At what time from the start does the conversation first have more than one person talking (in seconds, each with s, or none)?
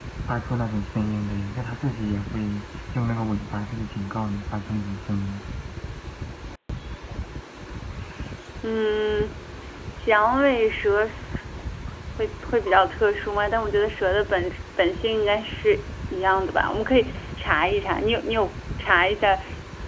none